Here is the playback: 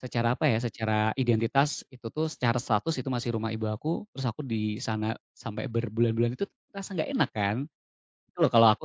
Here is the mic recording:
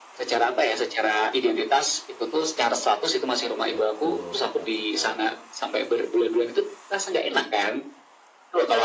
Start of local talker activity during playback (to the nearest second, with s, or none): 4 s